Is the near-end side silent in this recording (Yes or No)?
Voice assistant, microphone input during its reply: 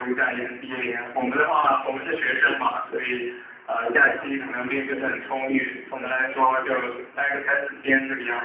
No